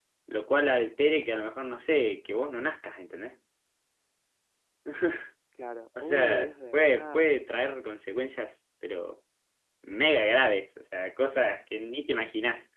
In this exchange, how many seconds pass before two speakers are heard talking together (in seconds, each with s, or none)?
6.0 s